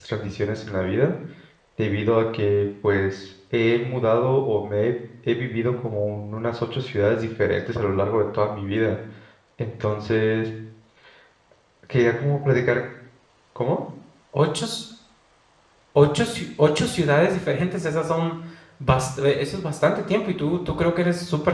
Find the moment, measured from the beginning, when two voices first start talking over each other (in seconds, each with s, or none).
none